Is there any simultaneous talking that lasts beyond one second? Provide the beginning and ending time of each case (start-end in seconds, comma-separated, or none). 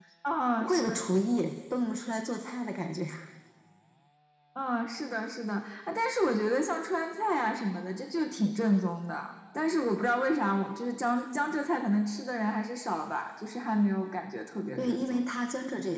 none